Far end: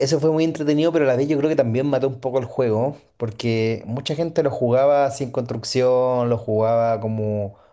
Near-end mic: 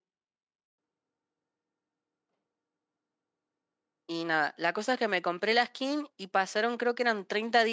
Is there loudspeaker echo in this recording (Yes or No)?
No